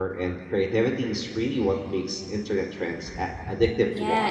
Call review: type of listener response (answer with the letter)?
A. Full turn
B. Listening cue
A